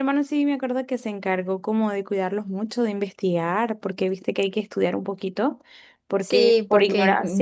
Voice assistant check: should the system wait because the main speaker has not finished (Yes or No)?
No